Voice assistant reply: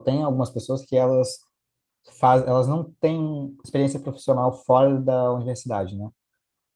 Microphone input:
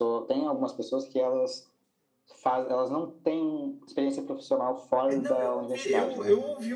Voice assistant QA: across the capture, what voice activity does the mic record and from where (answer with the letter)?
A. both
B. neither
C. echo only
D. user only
A